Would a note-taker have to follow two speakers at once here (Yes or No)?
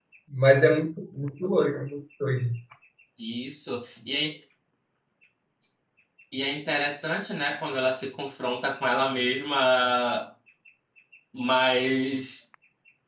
No